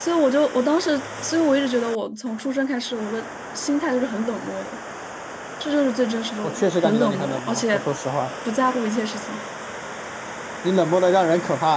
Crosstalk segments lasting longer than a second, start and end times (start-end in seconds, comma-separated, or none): 6.4-7.8